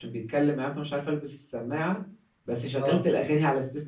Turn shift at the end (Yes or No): No